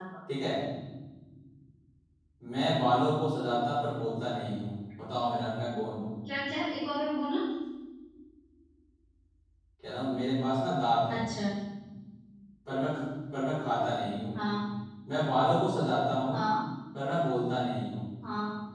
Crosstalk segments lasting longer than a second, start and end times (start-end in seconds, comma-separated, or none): none